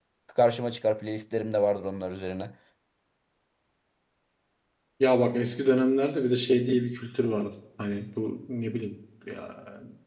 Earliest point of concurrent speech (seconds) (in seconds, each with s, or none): none